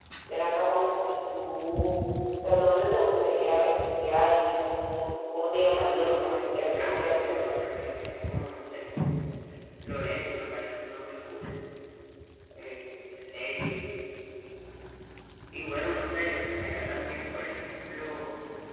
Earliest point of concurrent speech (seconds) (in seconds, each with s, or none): 5.9 s